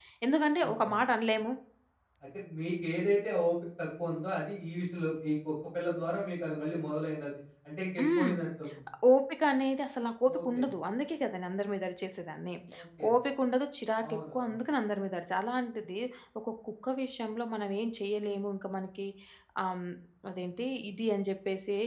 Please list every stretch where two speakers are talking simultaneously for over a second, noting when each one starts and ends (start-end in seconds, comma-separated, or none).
none